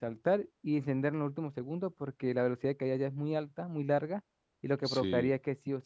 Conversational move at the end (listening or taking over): listening